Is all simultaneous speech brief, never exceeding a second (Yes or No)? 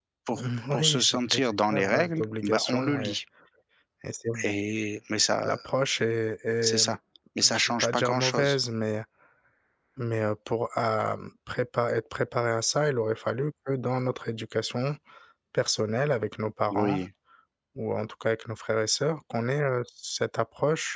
No